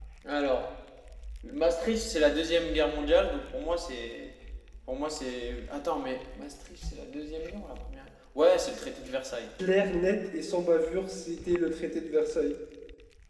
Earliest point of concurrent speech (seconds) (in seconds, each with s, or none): none